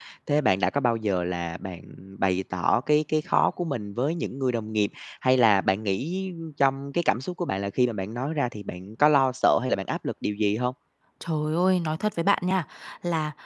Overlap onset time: none

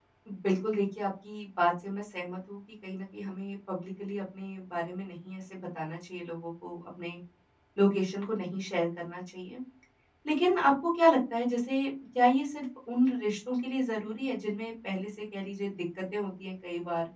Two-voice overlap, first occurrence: none

